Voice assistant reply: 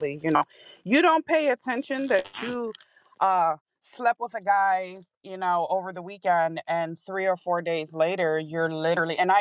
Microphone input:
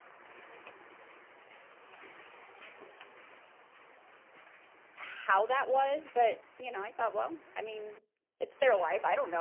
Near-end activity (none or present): present